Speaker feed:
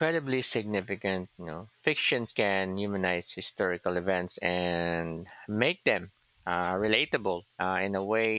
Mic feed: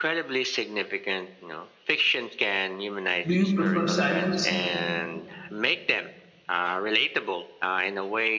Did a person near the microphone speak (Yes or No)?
Yes